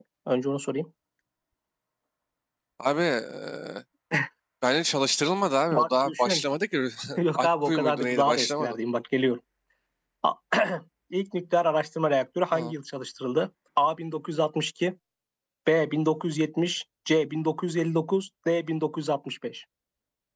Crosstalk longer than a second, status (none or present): present